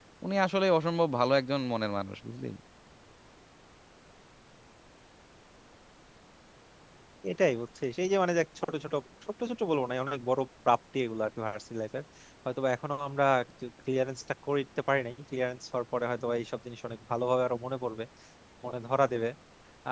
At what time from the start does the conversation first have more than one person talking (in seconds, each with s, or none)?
none